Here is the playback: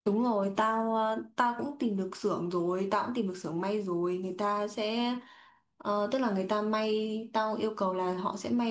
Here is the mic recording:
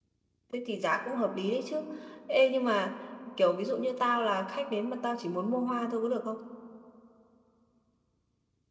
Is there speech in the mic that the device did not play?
Yes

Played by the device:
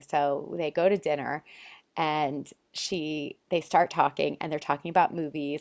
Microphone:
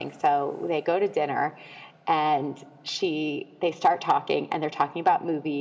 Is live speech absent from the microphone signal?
Yes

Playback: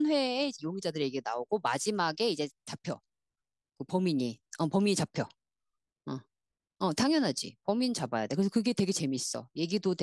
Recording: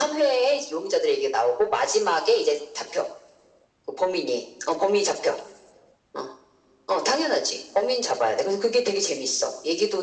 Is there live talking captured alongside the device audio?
No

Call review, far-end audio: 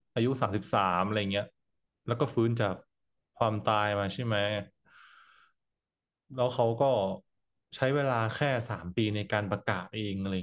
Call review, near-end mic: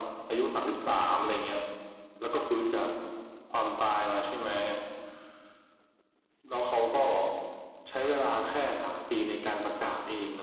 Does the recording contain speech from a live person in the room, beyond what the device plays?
No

